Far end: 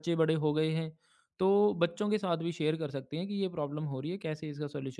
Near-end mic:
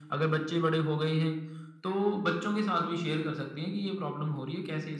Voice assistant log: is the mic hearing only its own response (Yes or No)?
Yes